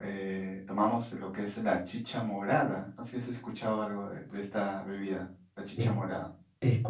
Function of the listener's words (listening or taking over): taking over